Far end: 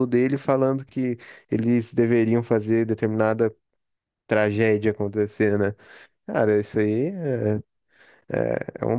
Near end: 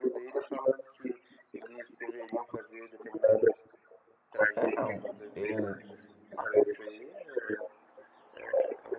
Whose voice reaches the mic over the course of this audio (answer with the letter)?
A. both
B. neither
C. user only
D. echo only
A